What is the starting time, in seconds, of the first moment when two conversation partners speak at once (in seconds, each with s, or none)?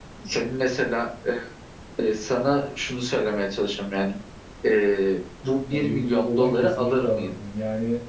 5.7 s